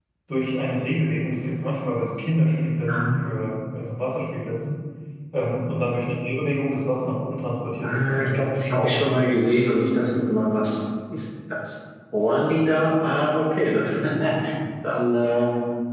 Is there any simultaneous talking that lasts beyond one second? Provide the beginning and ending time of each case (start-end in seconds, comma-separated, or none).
7.8-9.1